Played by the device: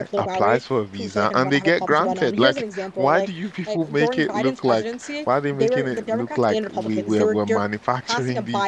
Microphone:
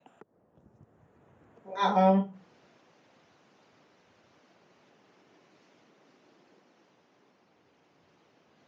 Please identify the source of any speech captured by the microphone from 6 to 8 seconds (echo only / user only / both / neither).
neither